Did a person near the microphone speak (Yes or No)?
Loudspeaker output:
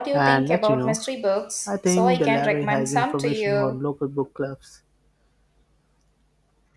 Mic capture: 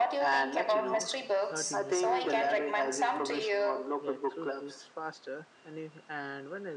Yes